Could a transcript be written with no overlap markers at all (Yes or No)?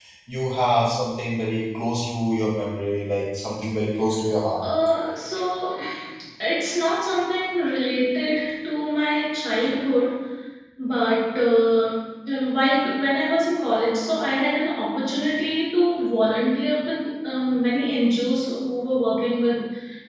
Yes